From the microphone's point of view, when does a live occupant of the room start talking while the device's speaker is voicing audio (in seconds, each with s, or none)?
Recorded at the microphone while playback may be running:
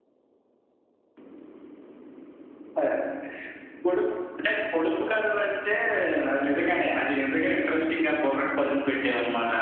none